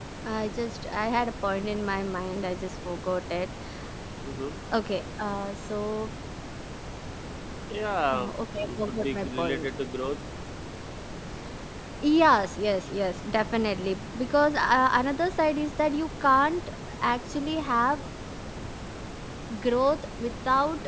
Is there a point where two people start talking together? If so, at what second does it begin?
8.1 s

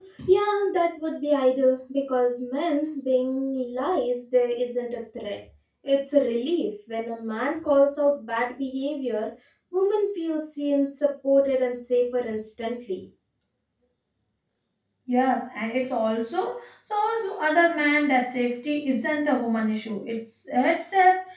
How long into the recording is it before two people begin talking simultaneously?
none

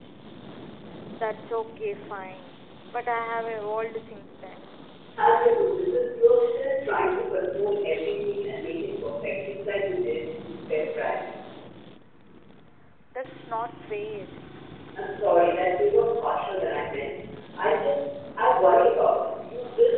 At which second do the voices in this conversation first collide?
none

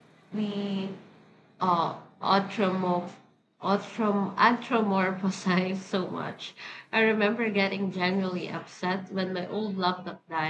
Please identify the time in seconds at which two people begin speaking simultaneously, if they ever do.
none

